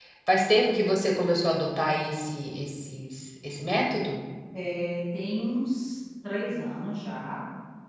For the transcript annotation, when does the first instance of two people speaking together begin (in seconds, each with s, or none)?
none